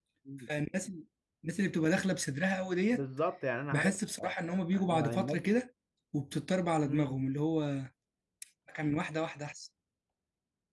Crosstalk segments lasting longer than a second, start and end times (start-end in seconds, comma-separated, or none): 3.7-5.4